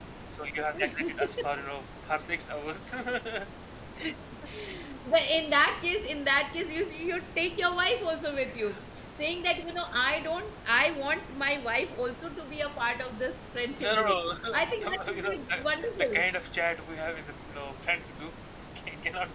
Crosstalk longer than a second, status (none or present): present